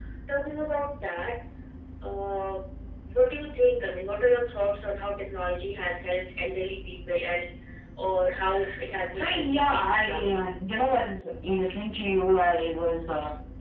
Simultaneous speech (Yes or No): Yes